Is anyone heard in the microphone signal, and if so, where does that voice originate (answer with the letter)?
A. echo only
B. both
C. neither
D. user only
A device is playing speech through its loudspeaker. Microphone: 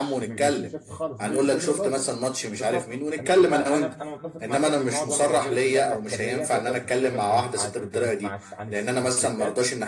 B